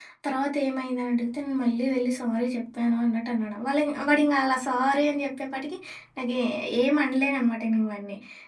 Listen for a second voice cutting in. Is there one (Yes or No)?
No